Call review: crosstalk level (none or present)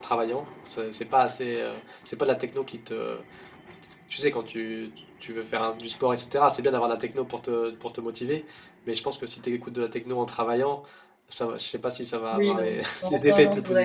present